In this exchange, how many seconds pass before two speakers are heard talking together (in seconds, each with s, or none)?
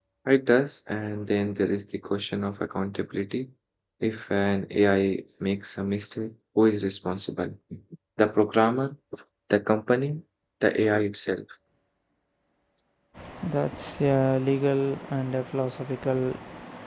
none